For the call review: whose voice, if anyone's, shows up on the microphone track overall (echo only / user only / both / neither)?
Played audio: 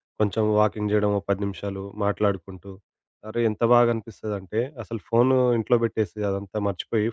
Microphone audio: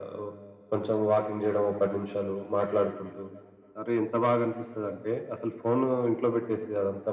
echo only